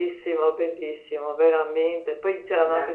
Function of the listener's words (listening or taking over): listening